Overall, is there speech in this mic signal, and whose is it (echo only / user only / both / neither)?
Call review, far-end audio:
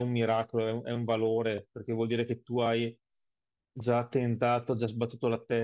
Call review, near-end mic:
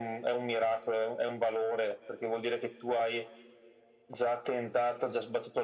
echo only